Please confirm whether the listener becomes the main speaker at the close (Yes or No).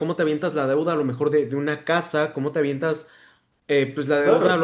No